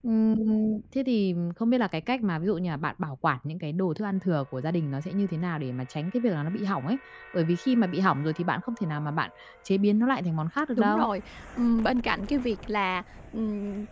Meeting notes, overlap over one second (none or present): none